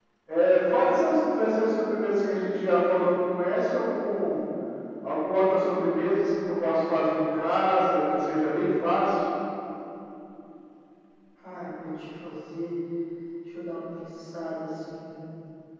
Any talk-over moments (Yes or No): No